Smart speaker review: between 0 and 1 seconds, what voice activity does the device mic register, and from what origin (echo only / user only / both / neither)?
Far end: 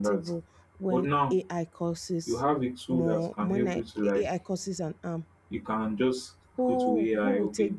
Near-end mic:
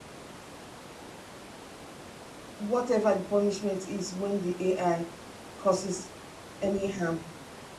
neither